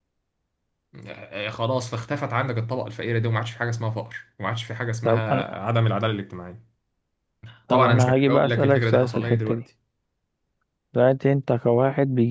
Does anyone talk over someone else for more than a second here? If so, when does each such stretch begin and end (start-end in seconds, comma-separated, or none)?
7.7-9.6